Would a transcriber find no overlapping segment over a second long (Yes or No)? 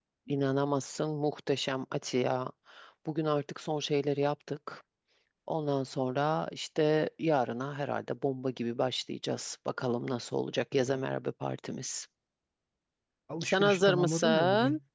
No